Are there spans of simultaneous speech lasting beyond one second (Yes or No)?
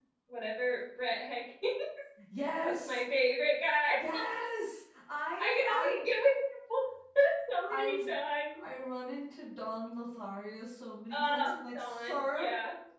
Yes